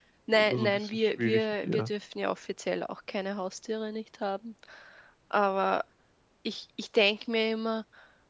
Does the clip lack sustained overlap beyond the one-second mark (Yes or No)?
No